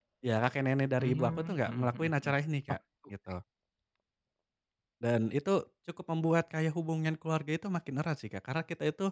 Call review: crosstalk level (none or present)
present